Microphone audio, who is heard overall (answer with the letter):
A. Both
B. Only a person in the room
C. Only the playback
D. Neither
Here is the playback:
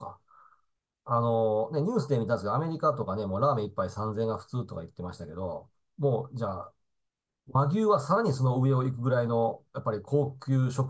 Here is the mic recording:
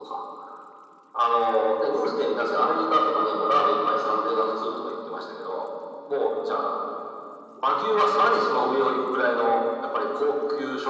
C